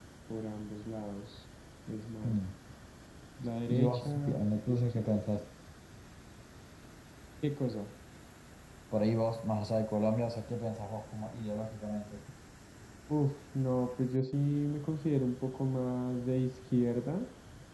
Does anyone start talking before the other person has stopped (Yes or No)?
Yes